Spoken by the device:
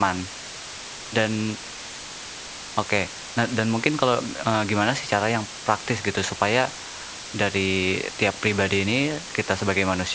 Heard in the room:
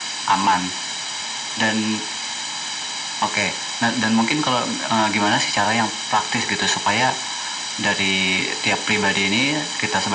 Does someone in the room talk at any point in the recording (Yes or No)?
No